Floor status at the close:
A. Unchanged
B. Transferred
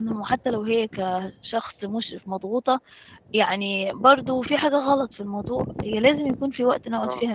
A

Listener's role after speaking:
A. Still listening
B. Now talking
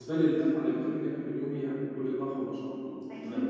B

